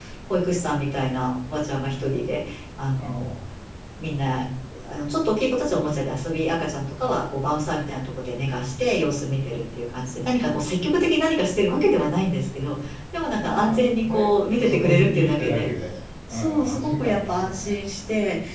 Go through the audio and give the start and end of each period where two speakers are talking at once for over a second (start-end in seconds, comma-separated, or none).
13.4-15.7, 16.3-17.8